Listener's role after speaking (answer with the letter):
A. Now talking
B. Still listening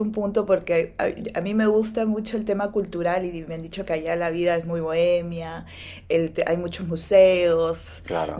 B